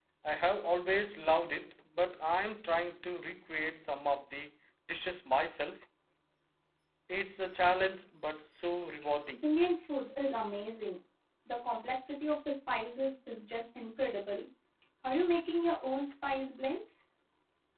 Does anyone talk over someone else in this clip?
No

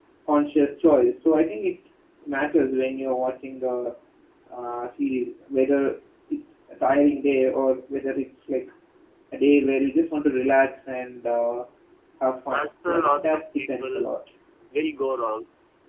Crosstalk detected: Yes, from 12.5 s

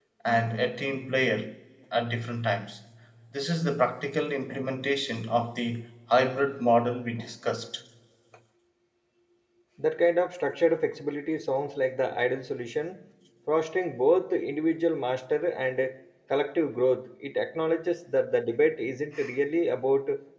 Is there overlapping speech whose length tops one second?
No

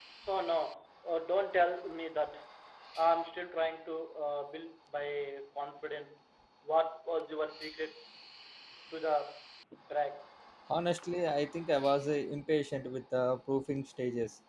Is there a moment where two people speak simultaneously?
No

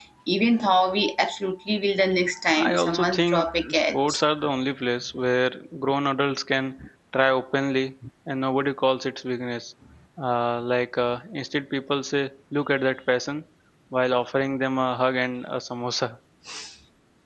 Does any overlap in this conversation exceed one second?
Yes, from 2.5 s

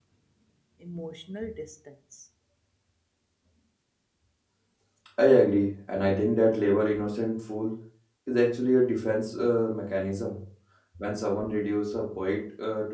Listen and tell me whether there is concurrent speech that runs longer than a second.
No

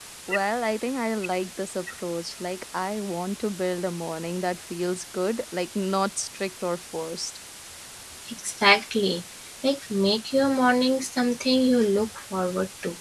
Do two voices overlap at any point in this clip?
No

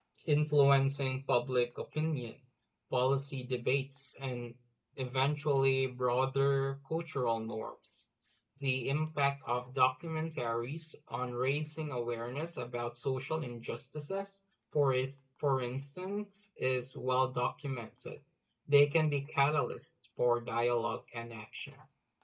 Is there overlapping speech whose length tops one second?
No

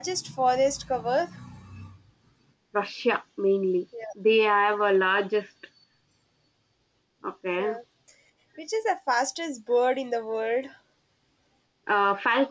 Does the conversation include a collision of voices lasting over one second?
No

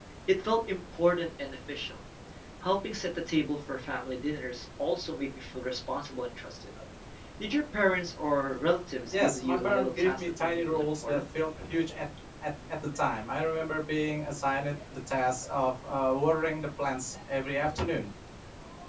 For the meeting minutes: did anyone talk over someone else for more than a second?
Yes, from 9.1 s

